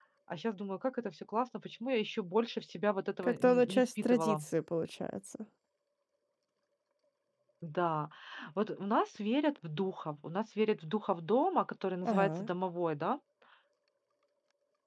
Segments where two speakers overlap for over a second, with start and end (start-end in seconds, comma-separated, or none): 3.2-4.4